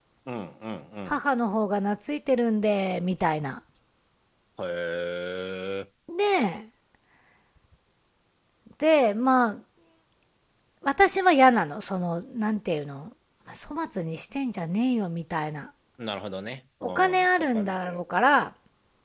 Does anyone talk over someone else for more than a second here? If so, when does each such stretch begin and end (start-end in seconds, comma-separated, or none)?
16.8-18.0